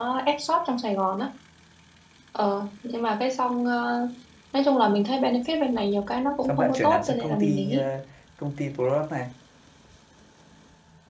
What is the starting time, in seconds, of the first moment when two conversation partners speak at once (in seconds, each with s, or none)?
6.4 s